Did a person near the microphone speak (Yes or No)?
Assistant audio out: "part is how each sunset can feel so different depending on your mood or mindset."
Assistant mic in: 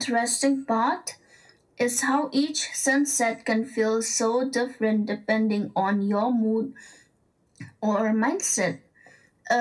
No